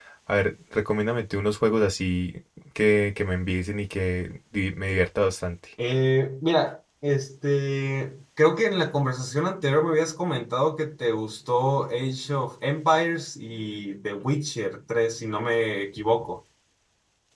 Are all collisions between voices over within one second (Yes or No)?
Yes